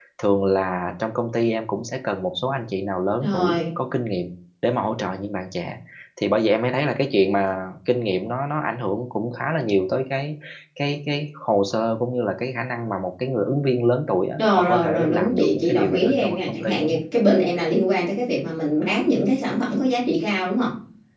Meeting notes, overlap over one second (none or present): present